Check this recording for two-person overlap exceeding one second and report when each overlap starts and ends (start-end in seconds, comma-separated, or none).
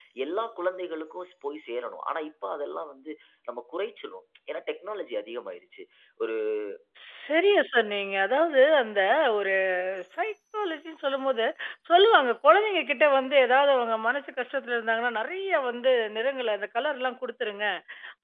none